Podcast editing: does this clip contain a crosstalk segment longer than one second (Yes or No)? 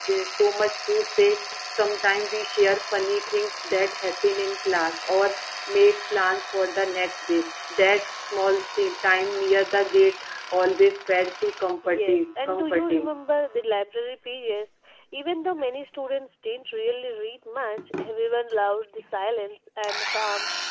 Yes